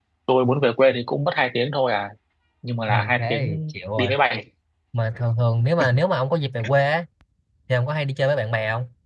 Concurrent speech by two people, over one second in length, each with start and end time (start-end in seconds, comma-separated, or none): 2.9-4.1